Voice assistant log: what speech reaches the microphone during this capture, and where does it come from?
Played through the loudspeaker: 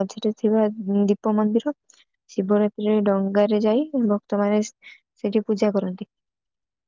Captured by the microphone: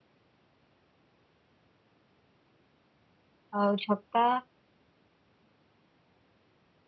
user only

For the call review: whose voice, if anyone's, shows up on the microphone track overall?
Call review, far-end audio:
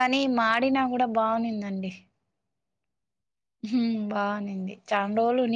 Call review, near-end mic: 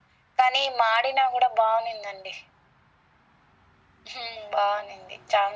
echo only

